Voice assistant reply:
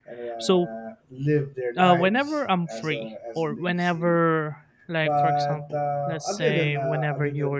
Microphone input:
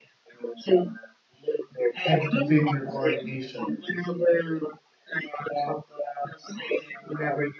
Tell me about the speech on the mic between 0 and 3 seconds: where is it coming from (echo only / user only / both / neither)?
both